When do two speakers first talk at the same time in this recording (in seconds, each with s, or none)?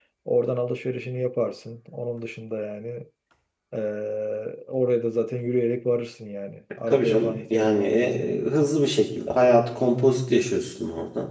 6.9 s